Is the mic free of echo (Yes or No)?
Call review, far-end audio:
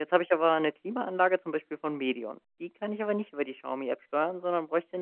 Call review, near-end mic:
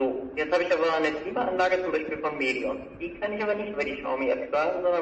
No